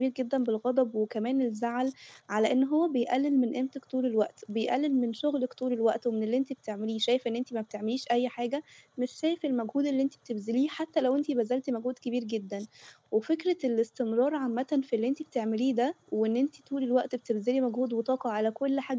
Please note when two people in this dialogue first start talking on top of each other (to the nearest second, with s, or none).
none